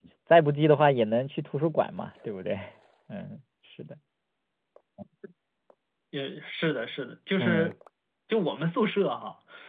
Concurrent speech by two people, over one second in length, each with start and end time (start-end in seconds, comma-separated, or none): none